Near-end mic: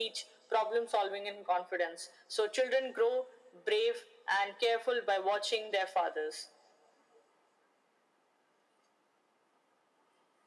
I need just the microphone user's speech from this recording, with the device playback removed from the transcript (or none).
none